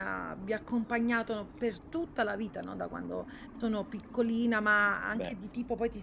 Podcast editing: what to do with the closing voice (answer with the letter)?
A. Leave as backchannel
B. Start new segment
A